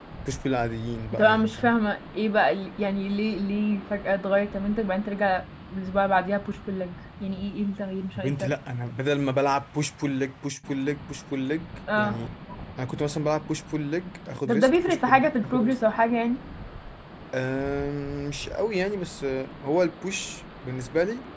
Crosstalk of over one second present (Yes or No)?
Yes